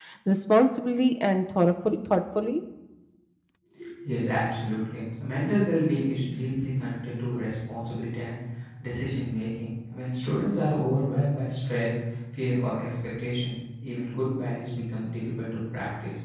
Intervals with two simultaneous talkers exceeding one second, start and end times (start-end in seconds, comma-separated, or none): none